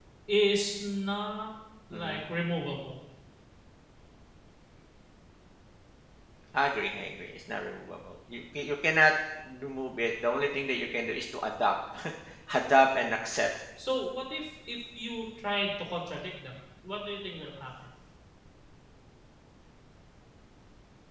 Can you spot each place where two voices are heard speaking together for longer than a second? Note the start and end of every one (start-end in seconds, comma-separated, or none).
none